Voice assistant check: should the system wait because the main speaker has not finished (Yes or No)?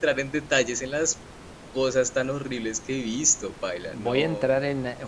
No